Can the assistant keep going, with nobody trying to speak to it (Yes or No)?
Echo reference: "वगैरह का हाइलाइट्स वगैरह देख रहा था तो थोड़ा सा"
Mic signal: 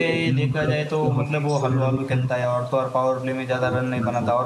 No